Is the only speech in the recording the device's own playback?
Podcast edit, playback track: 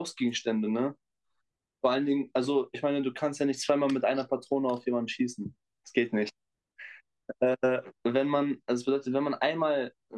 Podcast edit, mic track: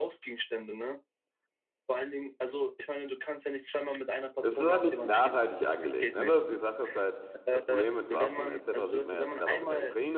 No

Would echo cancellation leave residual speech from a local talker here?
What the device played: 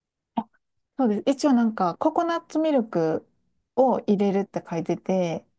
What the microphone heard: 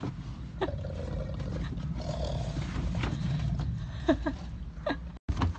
No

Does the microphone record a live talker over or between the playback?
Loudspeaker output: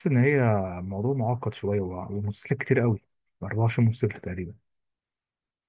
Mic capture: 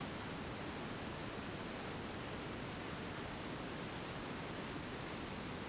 No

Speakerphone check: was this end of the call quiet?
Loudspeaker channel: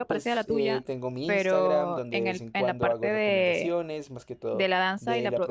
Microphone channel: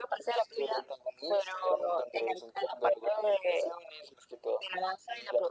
Yes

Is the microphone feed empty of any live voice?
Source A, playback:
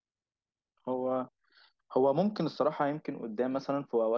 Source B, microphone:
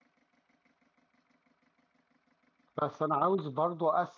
No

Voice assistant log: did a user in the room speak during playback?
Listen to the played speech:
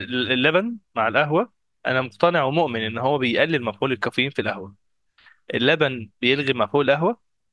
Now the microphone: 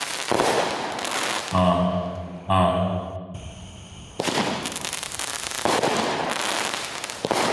Yes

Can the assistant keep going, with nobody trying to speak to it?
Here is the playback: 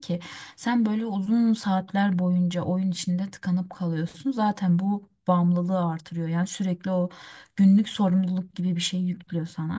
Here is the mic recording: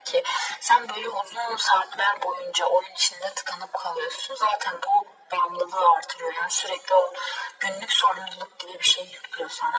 Yes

